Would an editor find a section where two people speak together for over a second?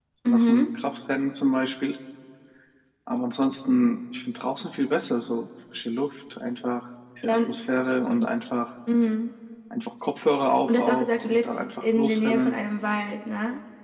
Yes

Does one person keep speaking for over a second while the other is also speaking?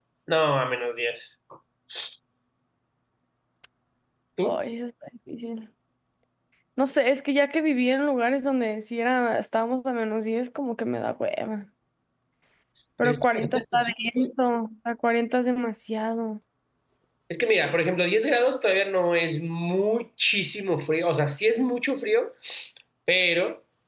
Yes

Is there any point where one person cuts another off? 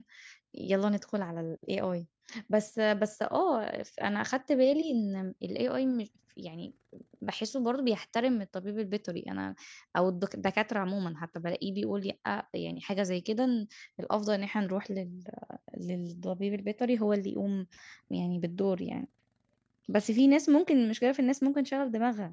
No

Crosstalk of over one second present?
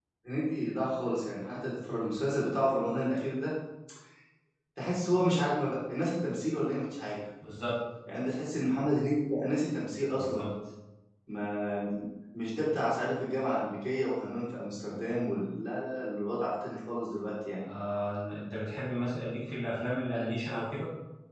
No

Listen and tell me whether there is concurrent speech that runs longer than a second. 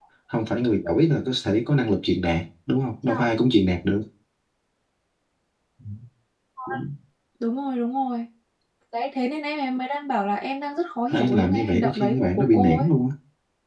Yes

